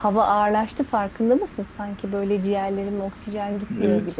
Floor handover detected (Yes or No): Yes